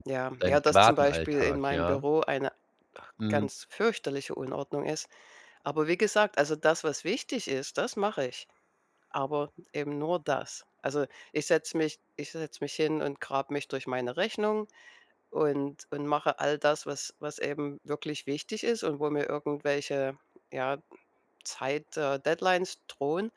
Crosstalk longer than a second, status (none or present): present